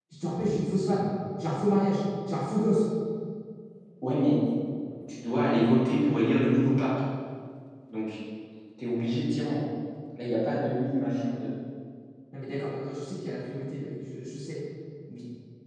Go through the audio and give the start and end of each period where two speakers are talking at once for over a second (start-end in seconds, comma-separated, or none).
none